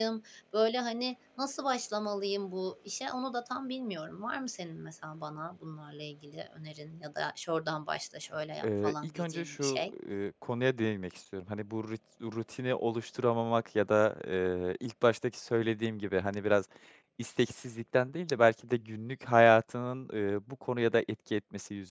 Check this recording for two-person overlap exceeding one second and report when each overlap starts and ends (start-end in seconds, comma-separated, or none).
8.6-9.9